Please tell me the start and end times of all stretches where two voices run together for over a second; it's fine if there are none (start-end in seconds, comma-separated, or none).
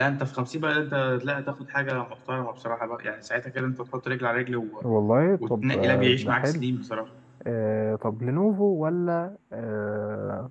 5.4-6.6